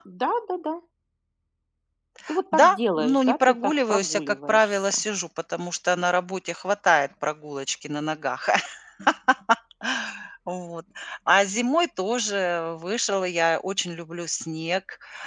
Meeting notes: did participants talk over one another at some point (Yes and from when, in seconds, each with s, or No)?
Yes, from 2.5 s